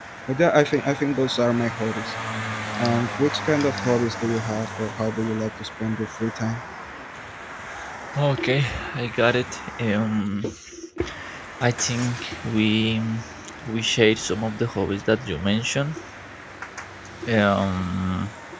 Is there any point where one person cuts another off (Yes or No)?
No